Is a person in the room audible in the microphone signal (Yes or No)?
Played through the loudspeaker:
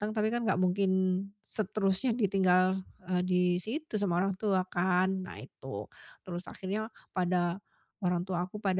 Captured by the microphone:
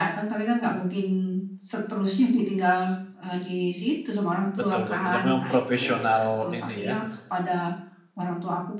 Yes